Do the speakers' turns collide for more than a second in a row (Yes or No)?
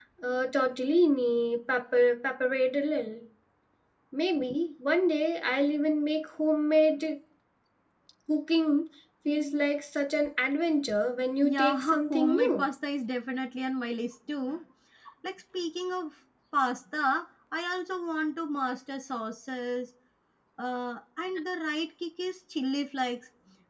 Yes